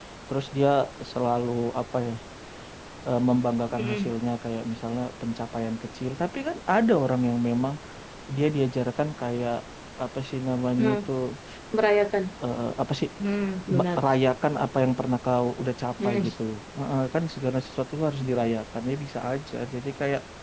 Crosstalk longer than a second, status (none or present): none